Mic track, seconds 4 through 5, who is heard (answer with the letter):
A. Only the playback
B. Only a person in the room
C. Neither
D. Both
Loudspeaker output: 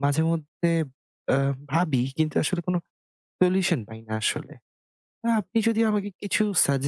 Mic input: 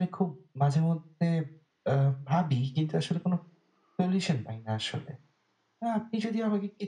A